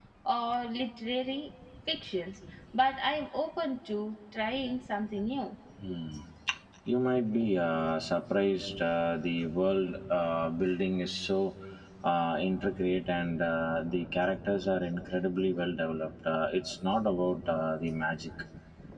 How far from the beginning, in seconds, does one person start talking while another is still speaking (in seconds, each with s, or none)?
none